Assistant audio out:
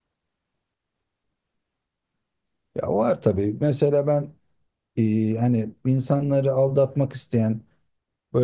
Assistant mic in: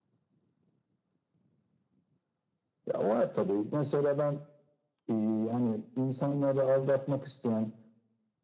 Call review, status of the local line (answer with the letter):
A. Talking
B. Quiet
B